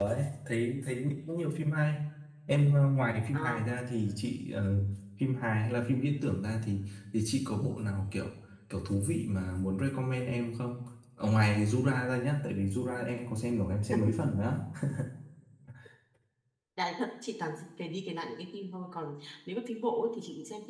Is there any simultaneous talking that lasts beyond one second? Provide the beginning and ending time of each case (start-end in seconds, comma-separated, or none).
none